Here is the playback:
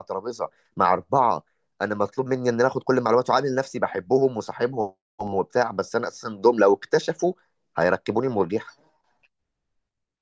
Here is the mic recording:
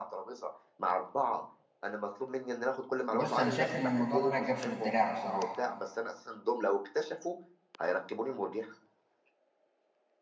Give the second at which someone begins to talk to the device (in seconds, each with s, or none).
3.1 s